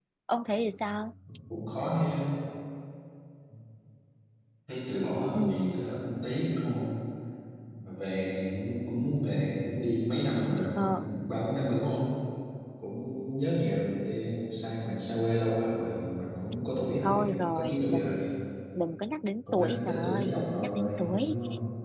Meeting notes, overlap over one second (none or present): present